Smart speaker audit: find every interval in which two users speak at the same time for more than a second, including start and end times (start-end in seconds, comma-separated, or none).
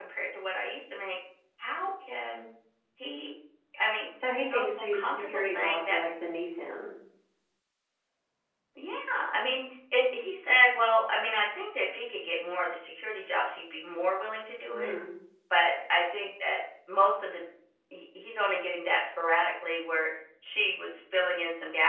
4.5-6.0